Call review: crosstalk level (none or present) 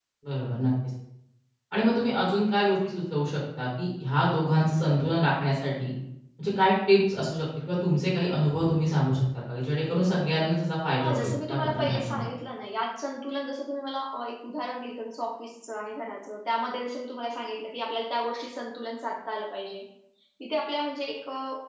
present